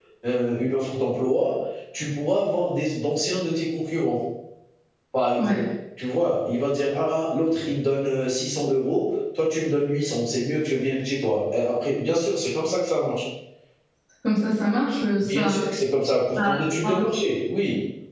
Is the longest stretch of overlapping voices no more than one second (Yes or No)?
Yes